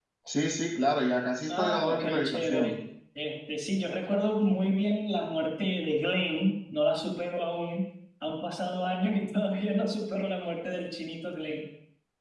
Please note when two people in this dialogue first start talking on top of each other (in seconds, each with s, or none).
1.5 s